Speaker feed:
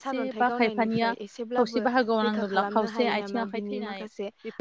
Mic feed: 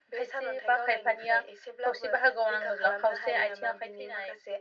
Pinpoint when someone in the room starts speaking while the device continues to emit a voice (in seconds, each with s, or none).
none